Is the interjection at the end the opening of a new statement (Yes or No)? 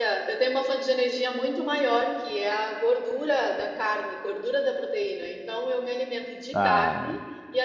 No